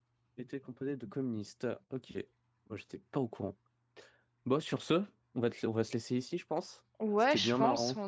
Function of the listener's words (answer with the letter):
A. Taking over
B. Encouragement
A